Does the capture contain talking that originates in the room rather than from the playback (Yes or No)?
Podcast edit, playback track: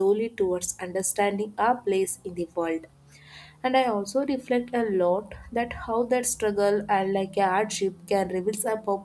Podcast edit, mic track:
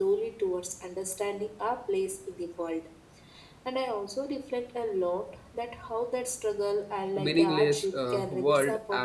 Yes